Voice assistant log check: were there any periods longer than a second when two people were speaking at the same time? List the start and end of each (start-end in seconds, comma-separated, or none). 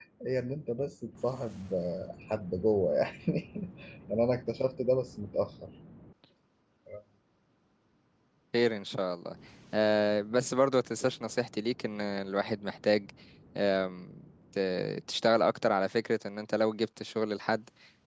none